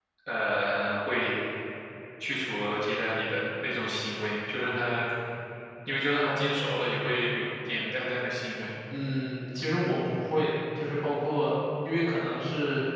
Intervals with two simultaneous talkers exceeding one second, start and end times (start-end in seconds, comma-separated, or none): none